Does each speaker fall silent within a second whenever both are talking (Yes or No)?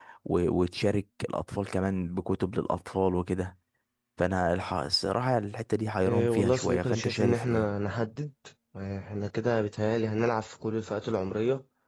No